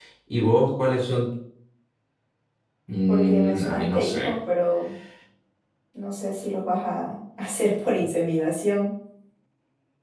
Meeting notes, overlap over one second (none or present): present